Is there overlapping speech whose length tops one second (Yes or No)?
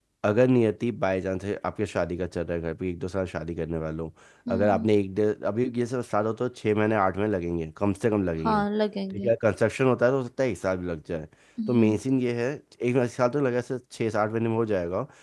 No